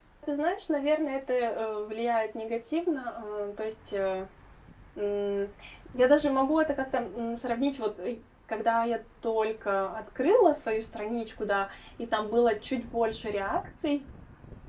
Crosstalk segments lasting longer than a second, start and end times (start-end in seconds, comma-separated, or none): none